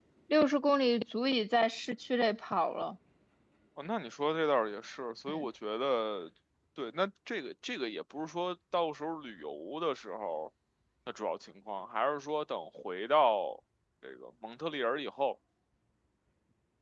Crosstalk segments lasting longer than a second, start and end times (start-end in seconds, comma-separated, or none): none